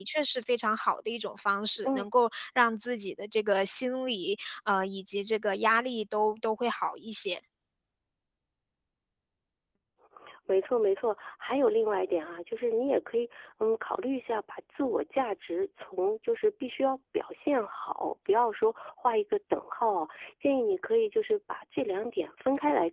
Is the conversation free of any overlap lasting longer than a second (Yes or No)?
Yes